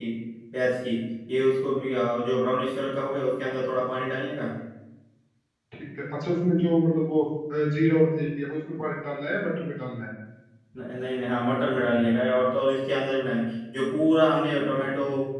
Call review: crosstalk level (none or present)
none